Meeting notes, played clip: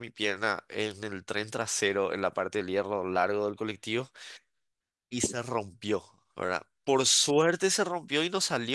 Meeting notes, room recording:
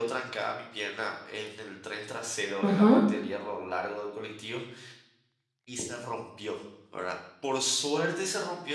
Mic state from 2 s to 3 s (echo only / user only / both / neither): both